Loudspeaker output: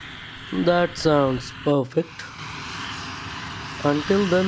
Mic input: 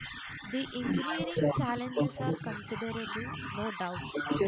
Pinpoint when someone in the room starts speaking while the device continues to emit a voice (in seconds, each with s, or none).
0.4 s